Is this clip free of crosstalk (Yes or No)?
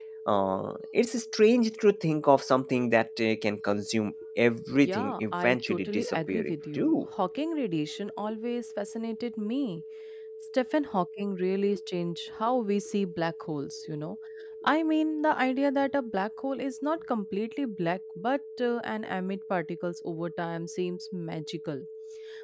No